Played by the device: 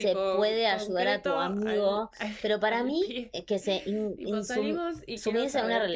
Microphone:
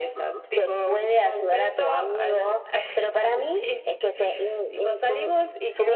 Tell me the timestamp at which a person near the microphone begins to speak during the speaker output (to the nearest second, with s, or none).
none